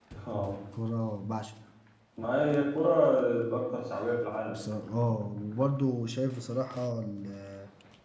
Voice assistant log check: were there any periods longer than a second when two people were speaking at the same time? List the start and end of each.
none

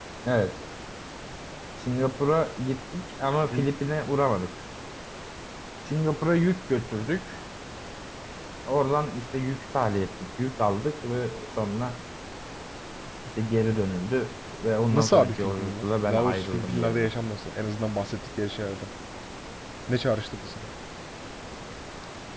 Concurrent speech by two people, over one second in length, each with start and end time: 14.9-17.1

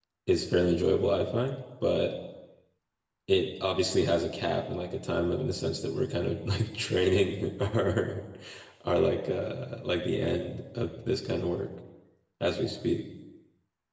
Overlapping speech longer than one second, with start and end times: none

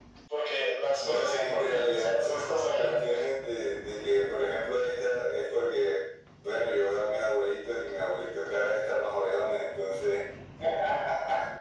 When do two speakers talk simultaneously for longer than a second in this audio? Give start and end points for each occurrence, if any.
1.0-3.1

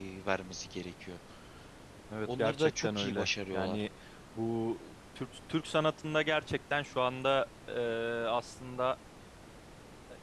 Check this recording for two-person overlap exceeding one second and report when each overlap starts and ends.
2.2-3.8

